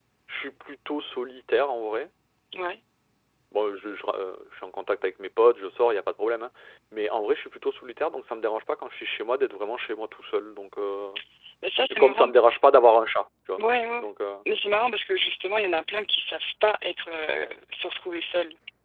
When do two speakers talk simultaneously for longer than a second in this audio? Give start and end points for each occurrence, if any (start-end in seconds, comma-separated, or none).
none